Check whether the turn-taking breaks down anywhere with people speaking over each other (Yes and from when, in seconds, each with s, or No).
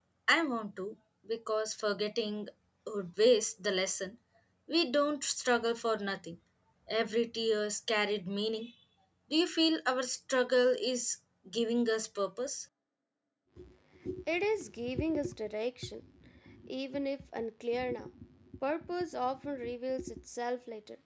No